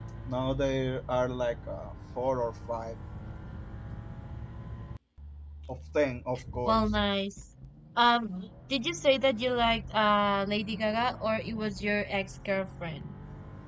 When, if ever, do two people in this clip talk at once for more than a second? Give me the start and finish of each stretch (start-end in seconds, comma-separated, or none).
none